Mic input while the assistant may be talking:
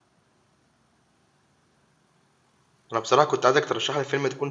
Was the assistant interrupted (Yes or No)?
Yes